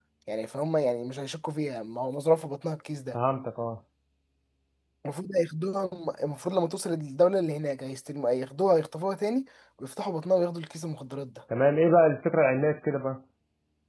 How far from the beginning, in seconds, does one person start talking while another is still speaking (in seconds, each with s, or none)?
none